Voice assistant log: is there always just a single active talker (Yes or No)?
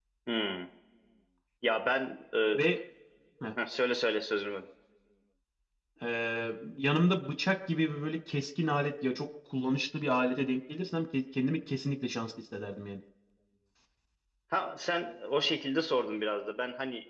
Yes